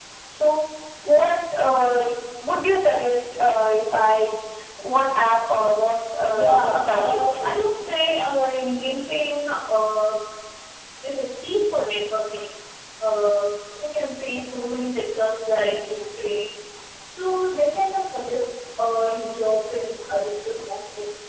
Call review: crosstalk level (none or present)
present